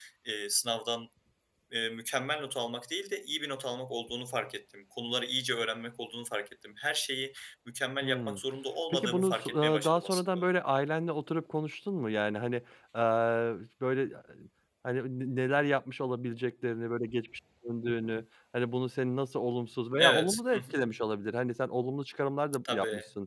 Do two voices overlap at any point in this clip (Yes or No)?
Yes